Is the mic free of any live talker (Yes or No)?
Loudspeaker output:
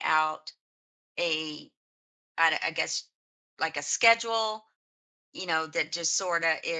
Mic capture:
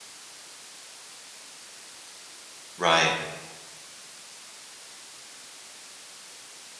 No